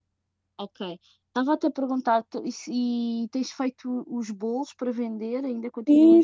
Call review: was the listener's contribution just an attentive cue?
No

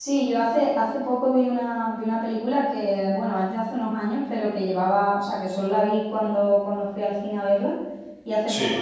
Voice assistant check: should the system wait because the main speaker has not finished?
Yes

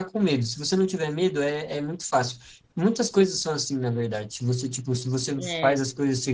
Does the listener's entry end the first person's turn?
No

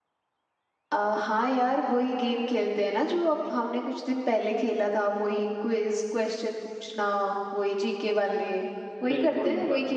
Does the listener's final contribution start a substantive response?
Yes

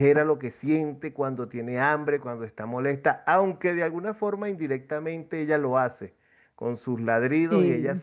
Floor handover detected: No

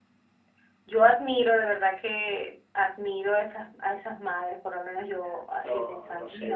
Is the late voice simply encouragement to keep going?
No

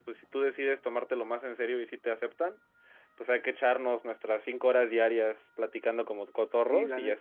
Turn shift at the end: Yes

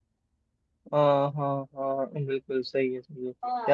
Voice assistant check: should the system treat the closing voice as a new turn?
No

